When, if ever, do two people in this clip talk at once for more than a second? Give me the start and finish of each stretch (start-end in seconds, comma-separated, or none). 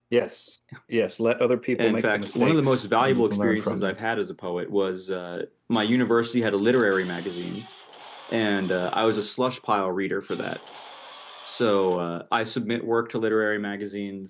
1.8-4.0